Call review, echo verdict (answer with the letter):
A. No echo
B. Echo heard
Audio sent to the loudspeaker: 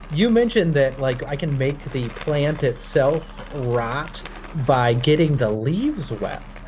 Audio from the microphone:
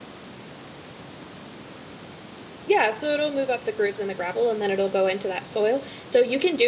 A